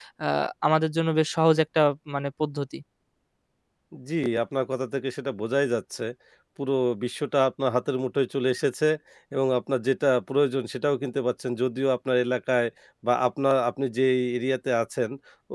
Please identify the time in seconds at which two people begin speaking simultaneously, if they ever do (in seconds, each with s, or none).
none